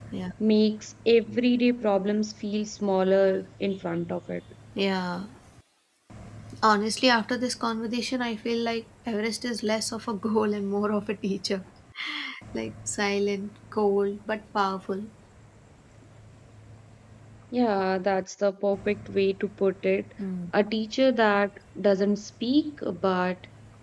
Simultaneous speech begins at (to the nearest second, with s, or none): none